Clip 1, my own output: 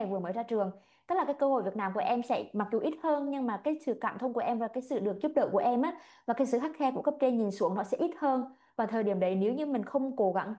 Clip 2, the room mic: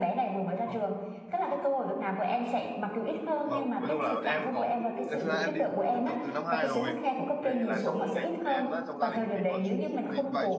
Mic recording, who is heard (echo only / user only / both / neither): both